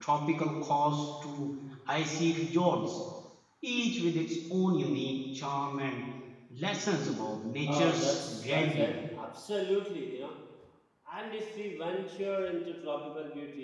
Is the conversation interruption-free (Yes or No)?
No